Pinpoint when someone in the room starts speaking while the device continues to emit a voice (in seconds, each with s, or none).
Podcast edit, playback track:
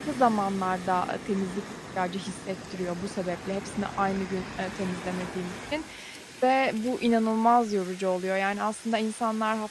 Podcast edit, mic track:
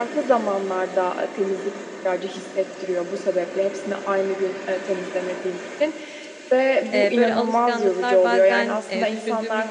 6.9 s